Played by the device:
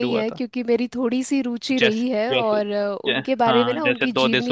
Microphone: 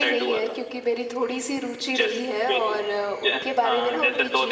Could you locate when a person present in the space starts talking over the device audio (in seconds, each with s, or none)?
none